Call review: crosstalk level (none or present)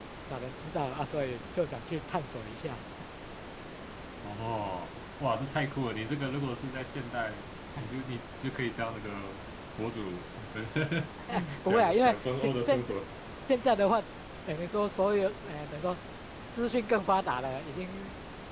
present